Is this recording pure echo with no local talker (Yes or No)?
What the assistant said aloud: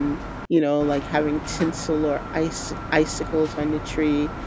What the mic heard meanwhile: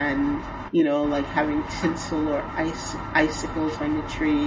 Yes